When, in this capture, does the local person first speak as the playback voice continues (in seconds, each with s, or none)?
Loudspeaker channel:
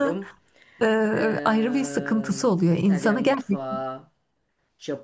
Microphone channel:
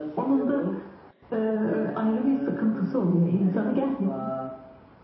none